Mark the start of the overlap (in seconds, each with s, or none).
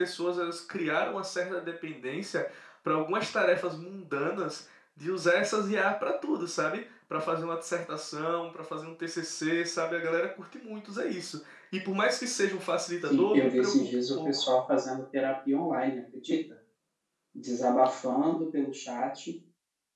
13.1 s